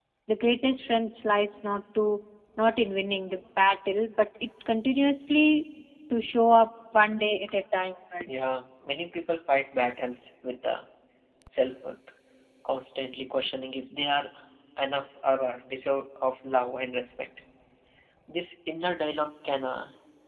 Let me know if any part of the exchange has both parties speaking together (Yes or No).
No